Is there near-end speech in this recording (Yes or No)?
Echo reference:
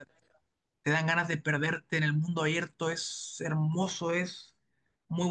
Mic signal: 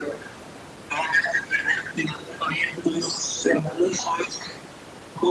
No